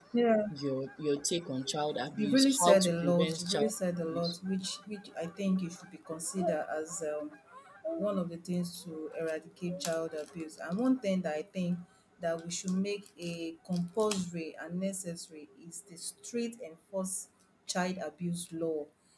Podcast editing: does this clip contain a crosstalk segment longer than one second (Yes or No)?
Yes